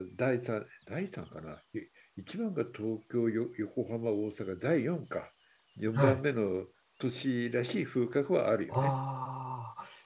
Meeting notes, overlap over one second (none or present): none